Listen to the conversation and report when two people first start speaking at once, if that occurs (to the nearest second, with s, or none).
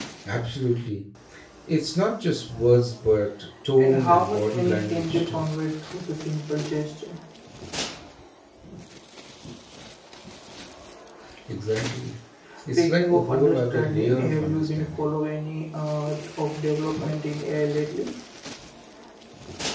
4 s